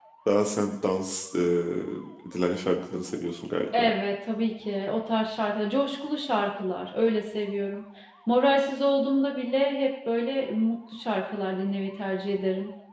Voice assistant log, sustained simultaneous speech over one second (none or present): none